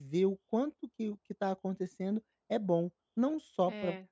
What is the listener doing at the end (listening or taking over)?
listening